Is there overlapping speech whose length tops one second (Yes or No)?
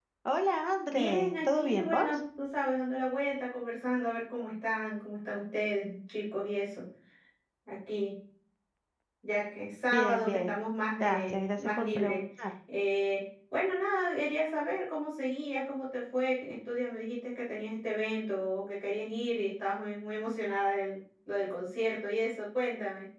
Yes